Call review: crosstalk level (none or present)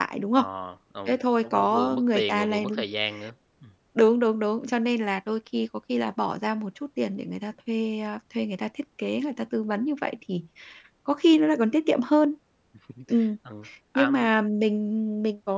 present